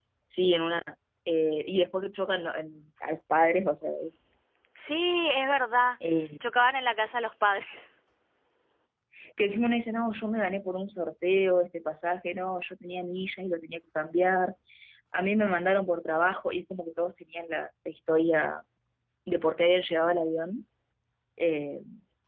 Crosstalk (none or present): none